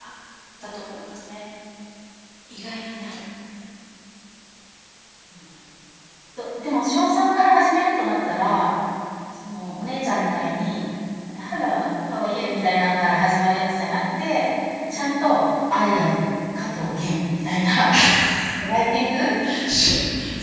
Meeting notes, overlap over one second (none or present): none